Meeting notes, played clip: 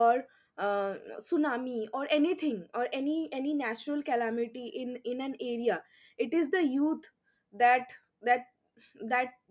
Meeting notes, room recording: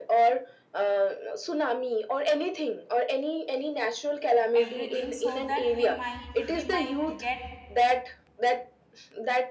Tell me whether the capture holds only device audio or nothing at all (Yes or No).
No